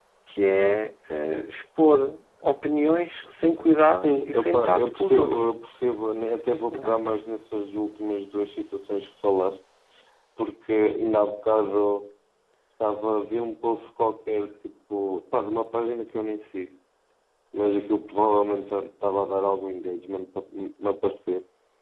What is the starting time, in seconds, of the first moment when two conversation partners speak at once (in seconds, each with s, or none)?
4.0 s